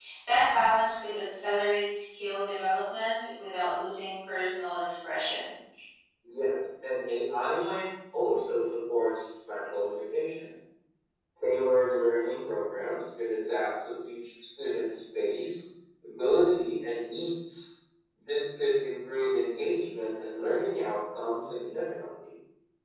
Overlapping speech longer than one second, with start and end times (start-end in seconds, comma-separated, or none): none